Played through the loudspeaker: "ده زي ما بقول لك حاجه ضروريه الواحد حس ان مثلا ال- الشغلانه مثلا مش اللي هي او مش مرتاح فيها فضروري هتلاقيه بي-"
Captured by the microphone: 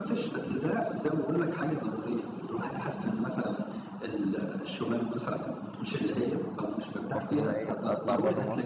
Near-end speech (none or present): present